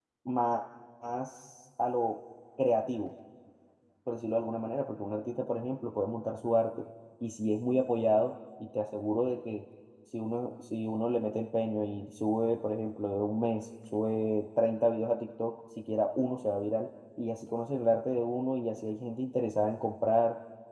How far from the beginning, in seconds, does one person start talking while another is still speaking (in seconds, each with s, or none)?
none